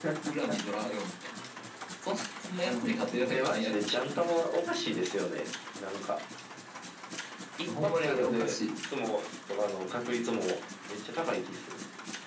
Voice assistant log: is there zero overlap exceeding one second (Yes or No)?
No